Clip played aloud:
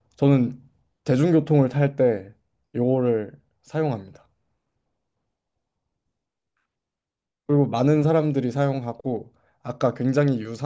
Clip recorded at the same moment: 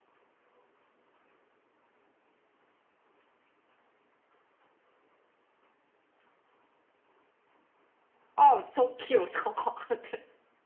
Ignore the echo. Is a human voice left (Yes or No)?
Yes